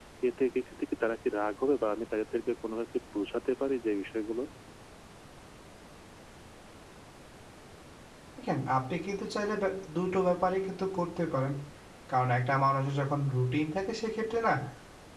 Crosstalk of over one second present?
No

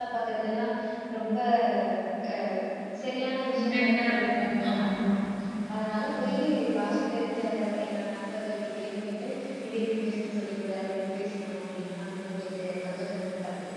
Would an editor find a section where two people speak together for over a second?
Yes, from 3.6 s

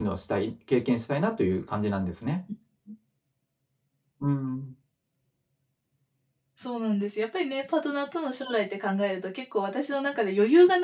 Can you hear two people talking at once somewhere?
No

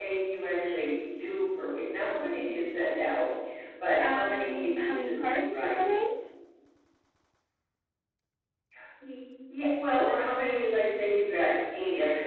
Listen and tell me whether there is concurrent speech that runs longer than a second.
Yes, from 4.0 s

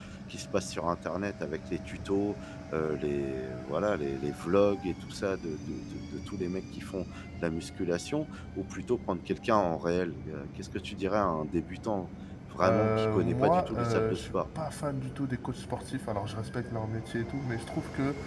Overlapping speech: Yes, from 12.6 s

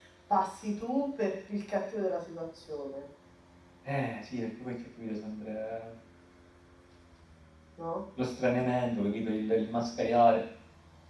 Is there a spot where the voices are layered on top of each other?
No

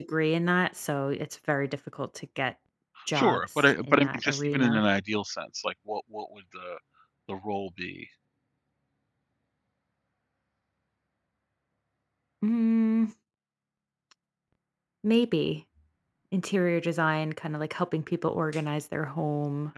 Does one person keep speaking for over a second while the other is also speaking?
Yes, from 3.1 s

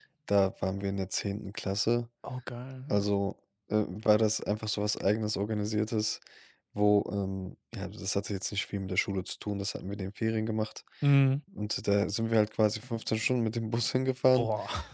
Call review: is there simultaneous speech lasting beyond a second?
No

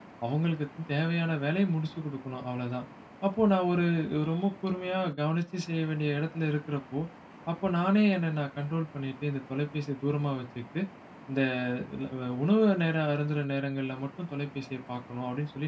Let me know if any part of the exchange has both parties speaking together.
No

